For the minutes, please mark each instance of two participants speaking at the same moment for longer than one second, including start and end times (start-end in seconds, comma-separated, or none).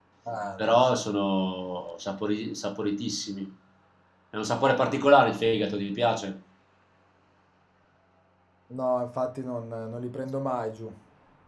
none